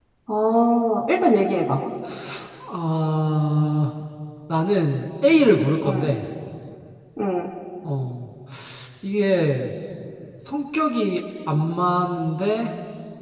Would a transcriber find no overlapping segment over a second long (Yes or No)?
Yes